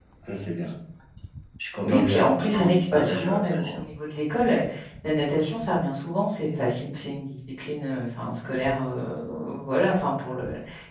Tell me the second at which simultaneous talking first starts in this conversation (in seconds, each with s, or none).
1.8 s